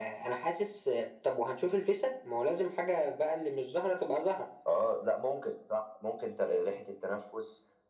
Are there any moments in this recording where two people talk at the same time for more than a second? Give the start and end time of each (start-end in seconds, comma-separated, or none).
none